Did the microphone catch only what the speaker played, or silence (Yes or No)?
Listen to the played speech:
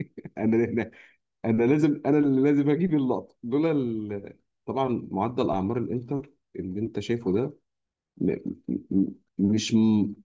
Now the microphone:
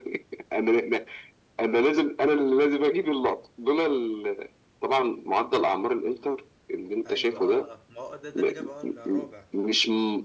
No